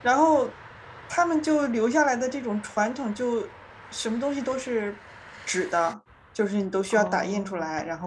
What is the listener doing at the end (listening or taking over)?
listening